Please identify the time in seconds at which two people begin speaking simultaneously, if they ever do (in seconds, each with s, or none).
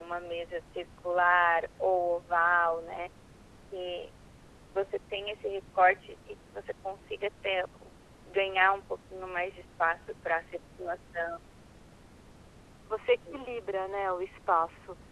none